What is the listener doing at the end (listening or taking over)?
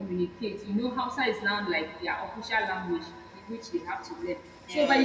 listening